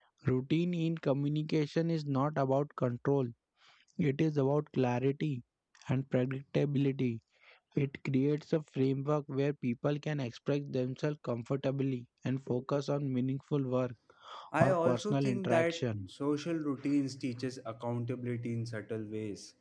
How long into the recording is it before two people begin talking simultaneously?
15 s

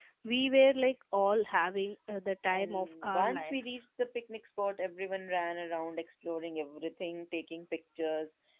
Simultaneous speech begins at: 3 s

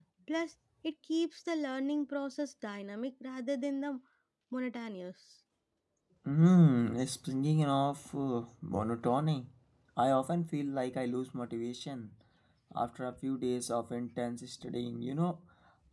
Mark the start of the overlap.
none

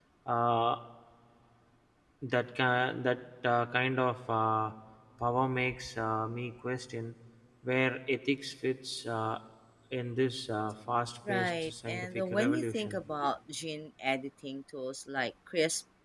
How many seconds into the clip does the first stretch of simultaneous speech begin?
11 s

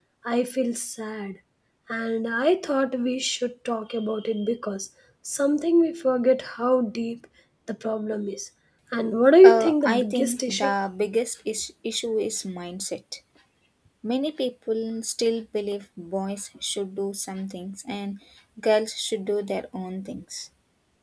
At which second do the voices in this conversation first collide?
9 s

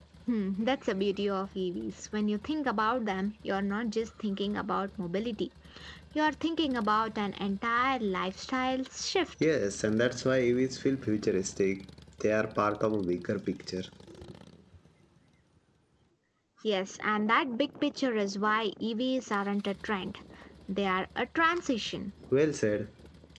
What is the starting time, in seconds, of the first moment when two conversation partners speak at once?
none

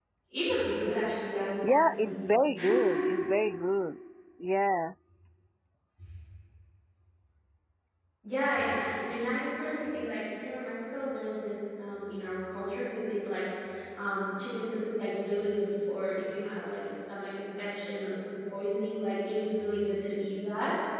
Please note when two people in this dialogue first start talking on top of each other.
2 s

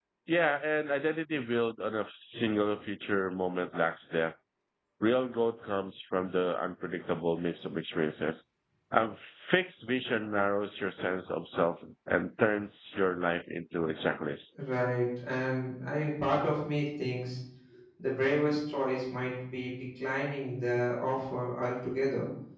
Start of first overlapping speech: none

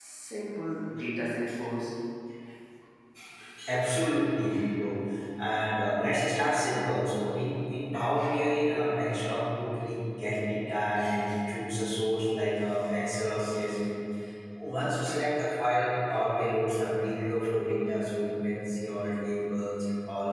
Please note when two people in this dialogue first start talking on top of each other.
none

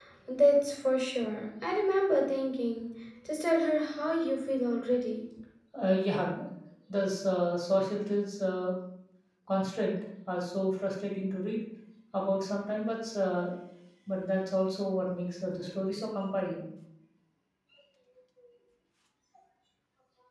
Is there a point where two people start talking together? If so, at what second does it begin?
none

